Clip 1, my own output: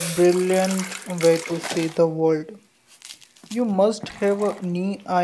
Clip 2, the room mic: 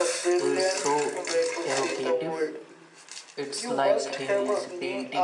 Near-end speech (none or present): present